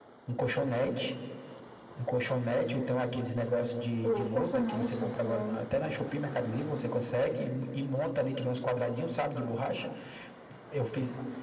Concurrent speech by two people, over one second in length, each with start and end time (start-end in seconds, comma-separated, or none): 4.0-5.6